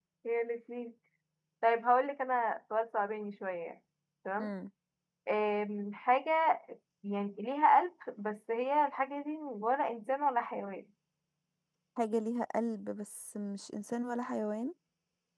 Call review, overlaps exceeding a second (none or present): none